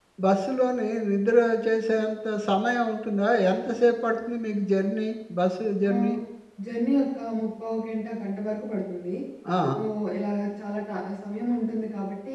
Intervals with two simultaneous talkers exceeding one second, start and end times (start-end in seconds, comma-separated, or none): none